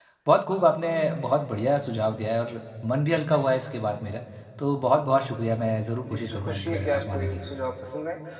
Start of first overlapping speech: 6.0 s

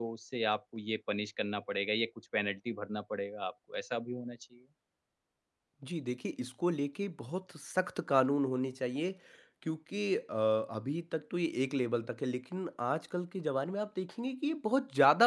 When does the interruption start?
none

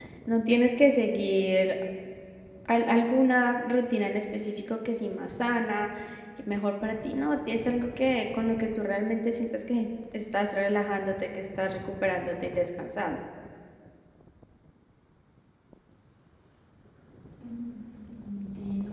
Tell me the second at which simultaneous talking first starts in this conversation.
none

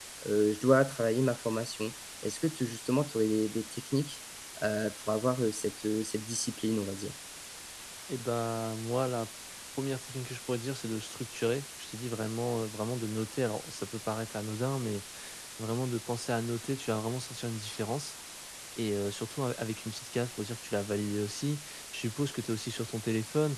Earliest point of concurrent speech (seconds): none

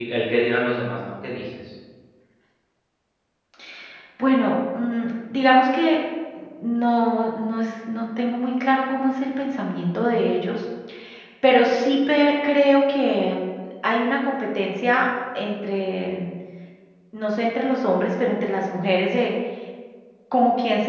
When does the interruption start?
none

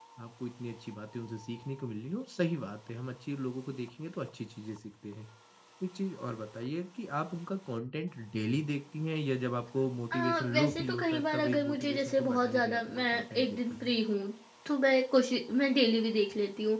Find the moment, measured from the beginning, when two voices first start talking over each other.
10.1 s

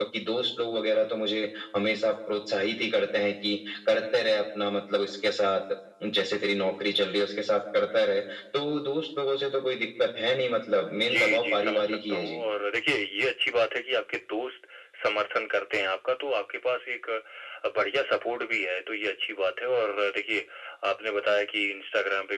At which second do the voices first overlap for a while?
11.0 s

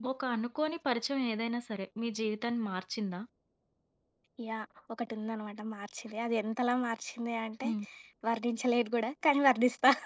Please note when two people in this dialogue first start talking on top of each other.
none

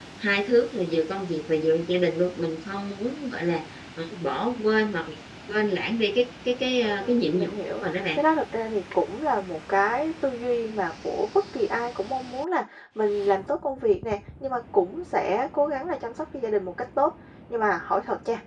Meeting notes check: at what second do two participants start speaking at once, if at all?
6.8 s

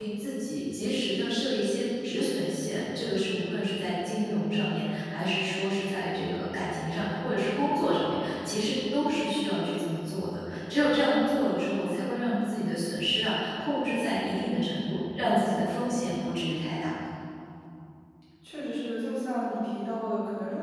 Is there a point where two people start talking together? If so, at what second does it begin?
none

